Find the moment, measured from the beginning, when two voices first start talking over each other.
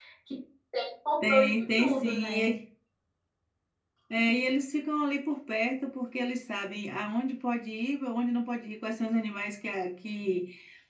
1.2 s

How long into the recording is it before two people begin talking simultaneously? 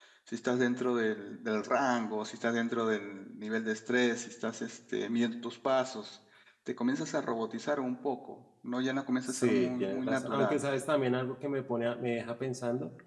9.3 s

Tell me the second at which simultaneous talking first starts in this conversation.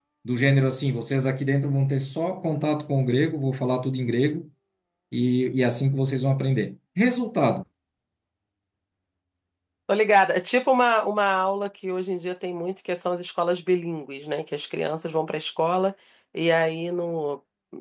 none

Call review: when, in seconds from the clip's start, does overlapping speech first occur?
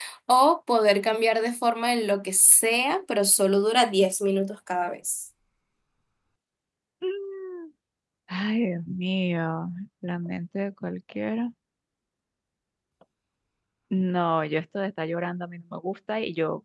none

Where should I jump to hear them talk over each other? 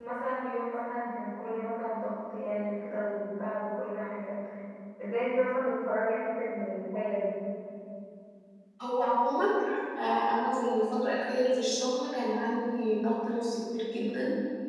none

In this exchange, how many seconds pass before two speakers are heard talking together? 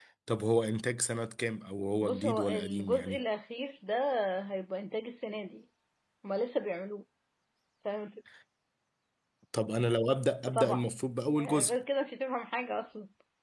2.0 s

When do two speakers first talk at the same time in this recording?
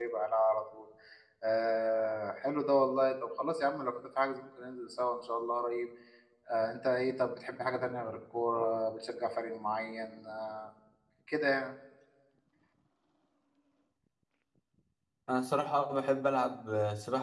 none

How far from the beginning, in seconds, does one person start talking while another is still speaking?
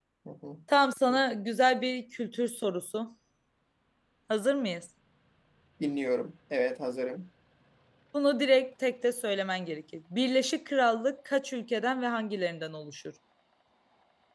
none

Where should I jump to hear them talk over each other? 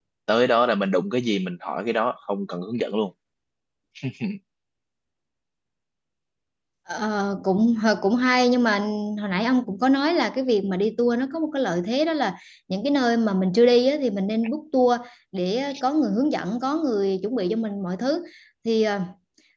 none

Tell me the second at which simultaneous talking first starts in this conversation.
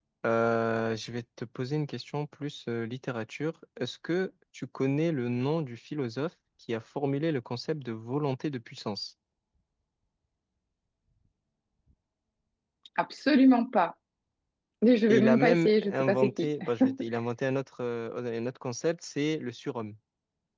15.1 s

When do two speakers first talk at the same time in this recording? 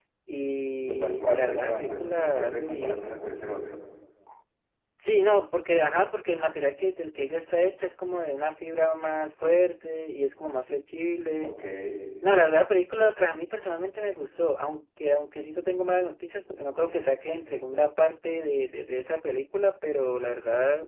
0.9 s

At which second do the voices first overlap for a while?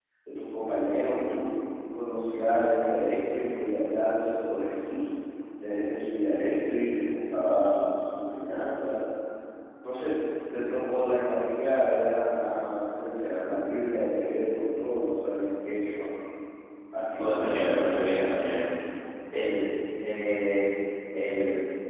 17.2 s

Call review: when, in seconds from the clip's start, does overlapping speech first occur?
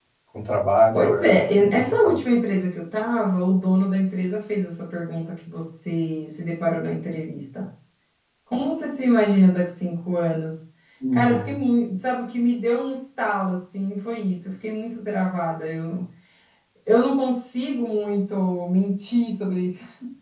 0.9 s

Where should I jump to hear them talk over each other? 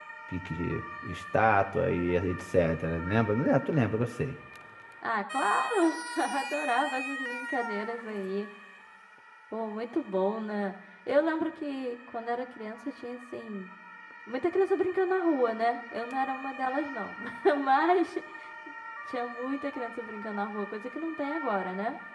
none

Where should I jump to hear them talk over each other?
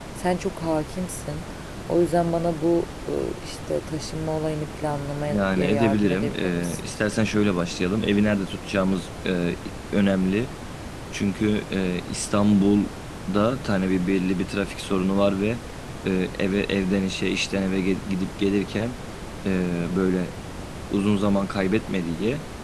5.3 s

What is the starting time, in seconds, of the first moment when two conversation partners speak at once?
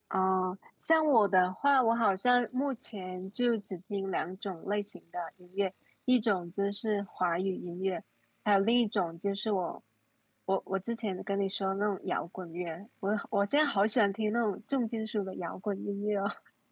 none

